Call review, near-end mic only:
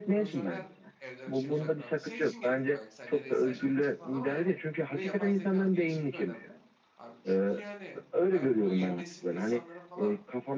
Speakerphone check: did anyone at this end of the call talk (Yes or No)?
Yes